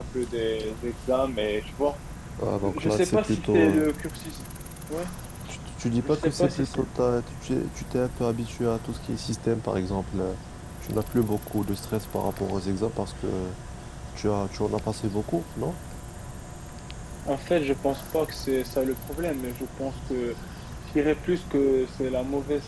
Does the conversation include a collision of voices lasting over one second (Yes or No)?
Yes